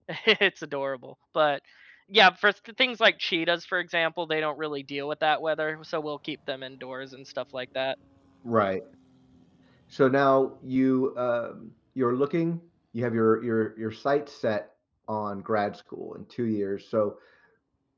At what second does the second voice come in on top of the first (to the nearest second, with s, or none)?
none